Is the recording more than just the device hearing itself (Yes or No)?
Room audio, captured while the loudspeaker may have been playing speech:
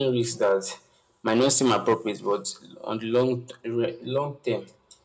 No